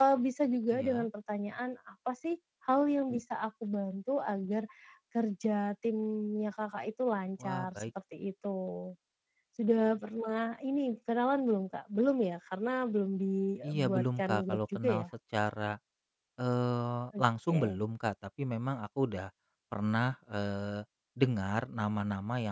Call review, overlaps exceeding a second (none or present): present